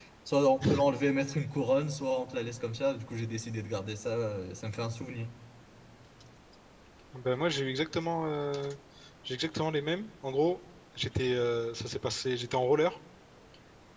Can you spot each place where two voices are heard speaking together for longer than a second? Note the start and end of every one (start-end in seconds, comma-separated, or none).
none